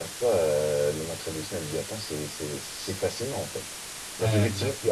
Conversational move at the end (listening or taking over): listening